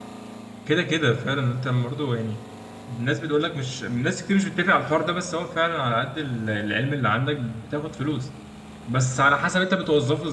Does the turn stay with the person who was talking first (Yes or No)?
Yes